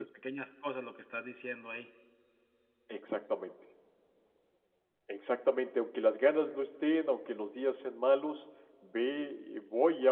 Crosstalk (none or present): none